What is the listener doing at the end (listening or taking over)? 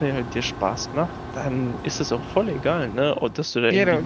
listening